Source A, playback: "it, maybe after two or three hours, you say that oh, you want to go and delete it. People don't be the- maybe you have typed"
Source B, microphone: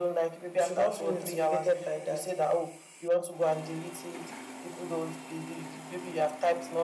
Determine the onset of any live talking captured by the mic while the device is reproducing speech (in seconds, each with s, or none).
0.5 s